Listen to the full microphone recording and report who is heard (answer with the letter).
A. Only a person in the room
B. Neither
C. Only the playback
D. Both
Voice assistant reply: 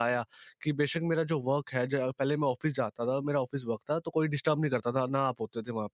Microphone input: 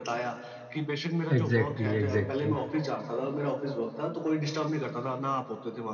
D